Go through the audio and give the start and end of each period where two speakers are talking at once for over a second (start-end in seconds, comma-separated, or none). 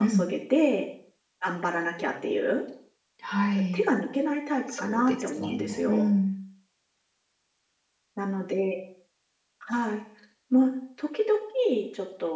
4.8-6.1